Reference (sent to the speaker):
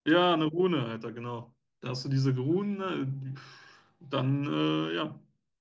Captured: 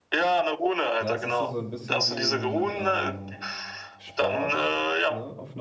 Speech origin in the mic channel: both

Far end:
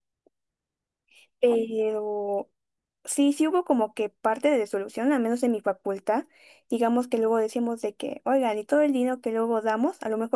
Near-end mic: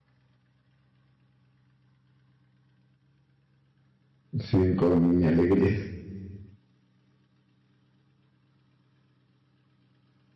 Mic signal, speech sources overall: user only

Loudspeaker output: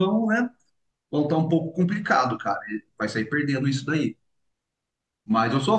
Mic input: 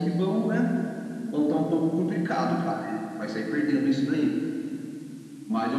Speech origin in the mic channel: echo only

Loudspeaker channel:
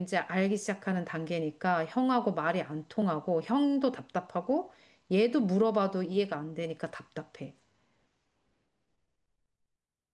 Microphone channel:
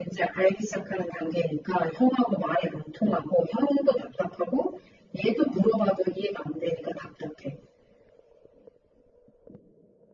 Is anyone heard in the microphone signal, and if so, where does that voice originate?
echo only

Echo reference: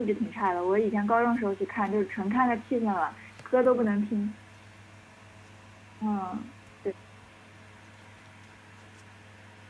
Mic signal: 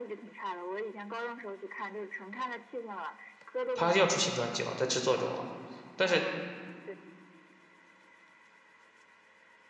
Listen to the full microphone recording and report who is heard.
both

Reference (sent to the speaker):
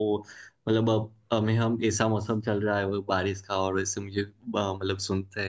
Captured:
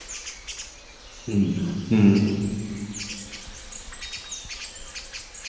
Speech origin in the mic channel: user only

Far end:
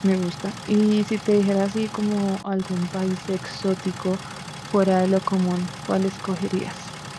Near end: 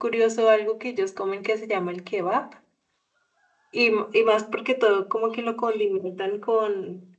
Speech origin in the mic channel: user only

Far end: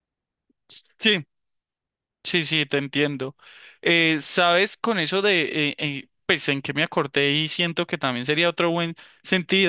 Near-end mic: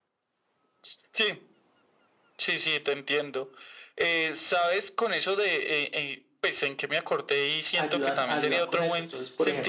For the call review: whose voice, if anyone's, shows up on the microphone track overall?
both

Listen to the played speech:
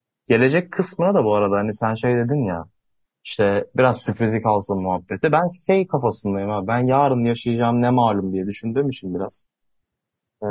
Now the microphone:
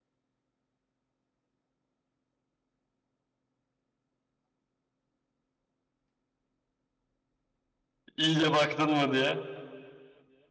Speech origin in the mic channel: user only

